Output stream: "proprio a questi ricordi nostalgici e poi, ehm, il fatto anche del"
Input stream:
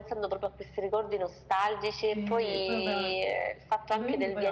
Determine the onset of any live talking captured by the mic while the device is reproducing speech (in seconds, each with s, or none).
2.1 s